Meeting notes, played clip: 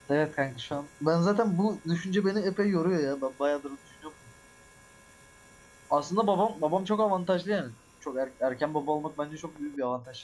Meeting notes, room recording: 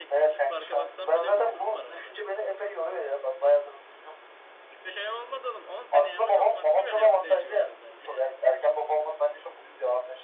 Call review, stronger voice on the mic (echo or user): echo